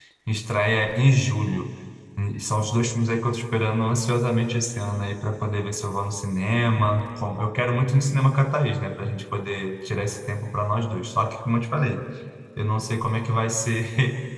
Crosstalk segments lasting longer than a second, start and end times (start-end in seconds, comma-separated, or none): none